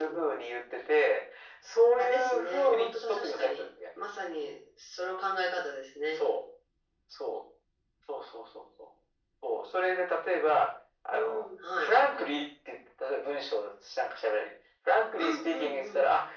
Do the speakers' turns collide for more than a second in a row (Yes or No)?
Yes